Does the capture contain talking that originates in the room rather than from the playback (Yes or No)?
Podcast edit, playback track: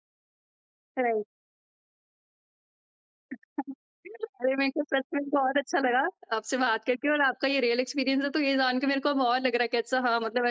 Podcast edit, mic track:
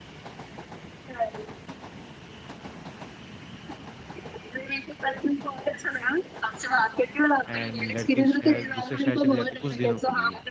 Yes